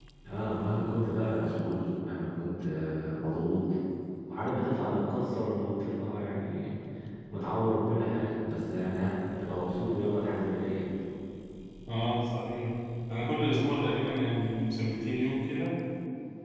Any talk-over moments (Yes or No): No